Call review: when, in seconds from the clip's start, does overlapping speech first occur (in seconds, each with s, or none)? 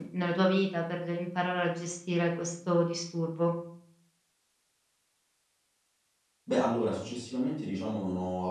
none